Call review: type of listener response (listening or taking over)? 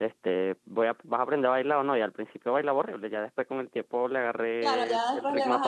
taking over